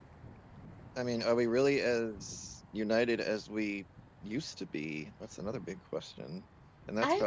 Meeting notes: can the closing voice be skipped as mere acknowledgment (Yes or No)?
Yes